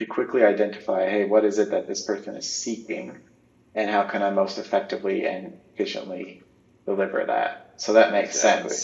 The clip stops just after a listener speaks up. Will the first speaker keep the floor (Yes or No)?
Yes